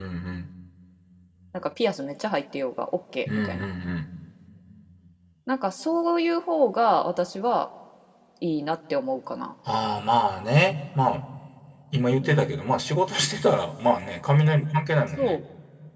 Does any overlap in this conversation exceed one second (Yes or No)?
No